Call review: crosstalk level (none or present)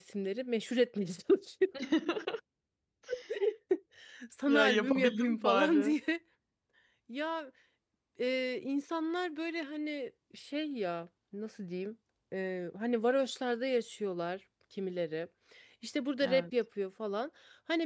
present